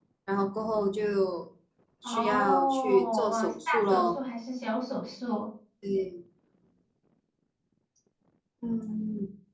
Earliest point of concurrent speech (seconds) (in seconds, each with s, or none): 2.0 s